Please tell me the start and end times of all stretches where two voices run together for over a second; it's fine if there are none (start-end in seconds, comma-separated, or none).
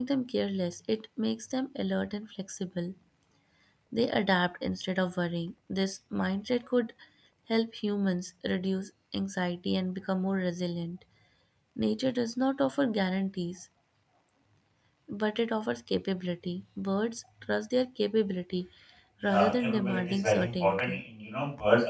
19.2-21.0